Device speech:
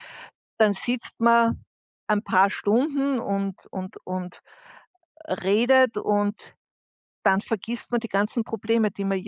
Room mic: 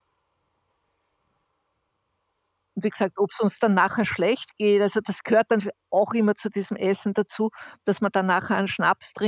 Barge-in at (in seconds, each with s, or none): 2.7 s